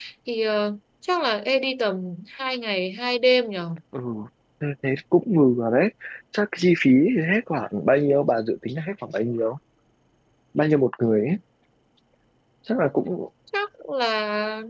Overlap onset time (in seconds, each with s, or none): none